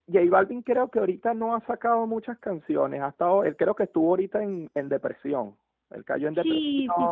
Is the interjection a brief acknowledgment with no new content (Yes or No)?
No